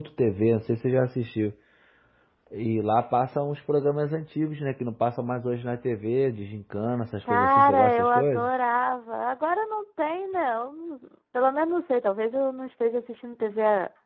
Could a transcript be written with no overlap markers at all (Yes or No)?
No